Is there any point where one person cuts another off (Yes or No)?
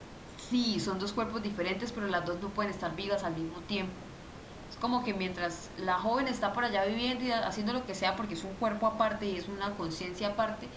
No